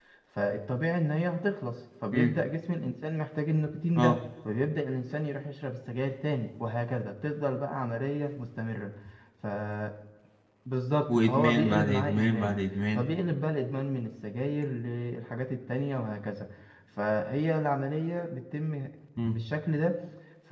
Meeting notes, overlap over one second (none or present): present